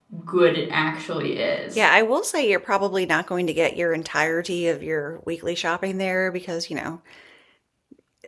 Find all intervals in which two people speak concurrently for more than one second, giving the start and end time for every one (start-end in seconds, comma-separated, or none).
none